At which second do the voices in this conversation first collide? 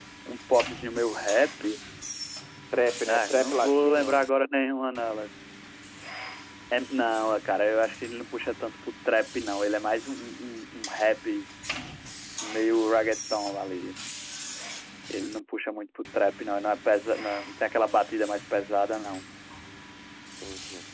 3.0 s

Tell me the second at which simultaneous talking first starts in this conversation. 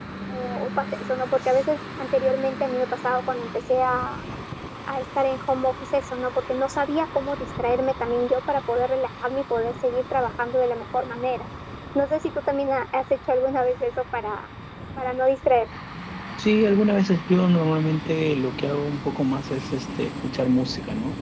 none

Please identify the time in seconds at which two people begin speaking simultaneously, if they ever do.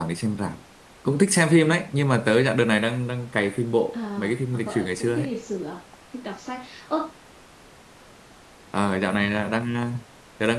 3.9 s

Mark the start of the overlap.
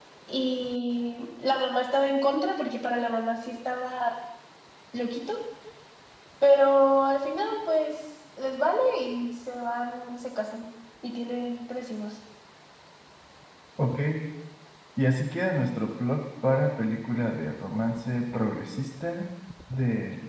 none

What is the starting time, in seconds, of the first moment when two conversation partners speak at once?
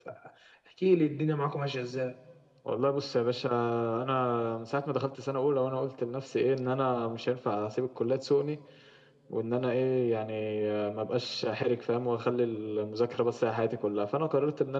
none

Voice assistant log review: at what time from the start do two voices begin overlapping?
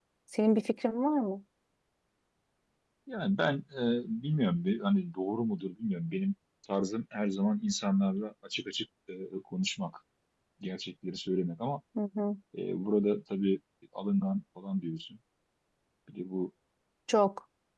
none

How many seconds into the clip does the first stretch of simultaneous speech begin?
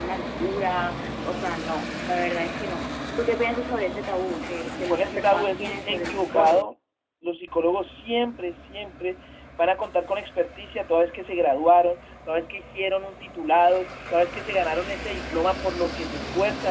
4.9 s

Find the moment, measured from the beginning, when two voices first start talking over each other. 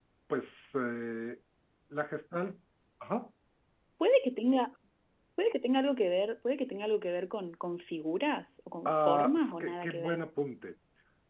8.8 s

